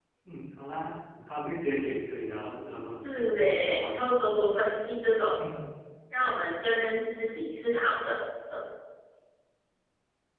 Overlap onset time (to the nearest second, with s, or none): 3 s